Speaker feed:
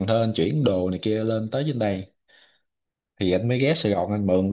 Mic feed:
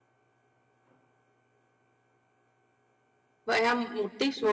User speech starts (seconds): 3.5 s

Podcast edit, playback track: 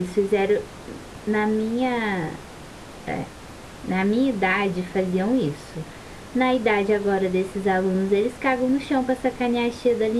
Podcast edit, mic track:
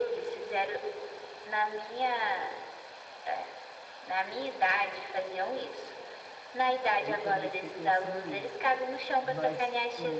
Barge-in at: 7.0 s

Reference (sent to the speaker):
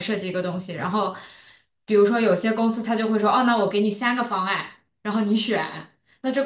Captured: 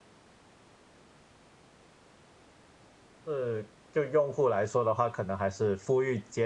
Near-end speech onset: 3.2 s

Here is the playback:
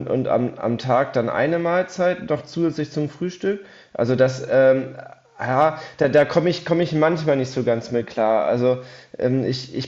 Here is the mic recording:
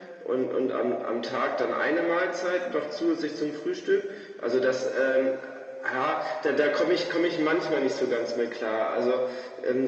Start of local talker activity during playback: none

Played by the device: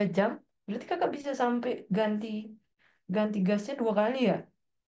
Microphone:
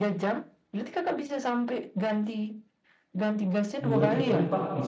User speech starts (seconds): 3.8 s

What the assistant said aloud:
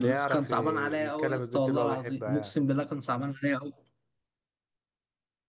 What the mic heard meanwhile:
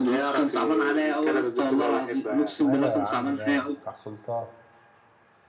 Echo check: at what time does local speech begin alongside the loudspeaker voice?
2.6 s

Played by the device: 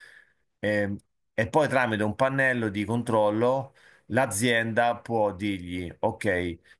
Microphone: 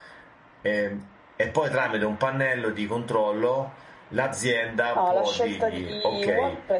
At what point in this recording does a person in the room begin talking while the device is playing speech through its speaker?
4.9 s

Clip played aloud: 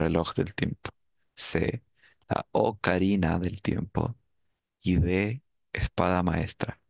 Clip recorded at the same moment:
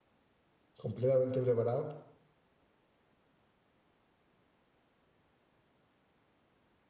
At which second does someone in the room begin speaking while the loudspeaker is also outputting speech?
0.8 s

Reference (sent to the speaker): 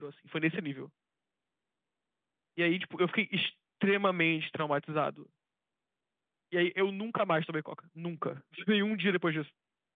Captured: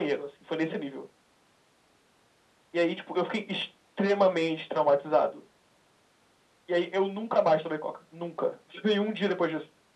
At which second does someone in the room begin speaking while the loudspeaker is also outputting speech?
none

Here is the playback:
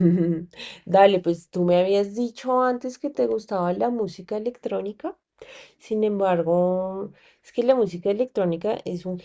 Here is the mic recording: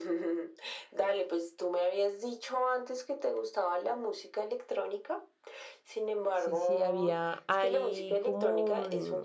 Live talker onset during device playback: 6.3 s

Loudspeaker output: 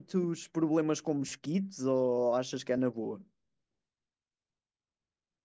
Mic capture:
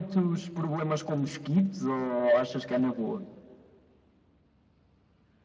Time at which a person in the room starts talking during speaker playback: none

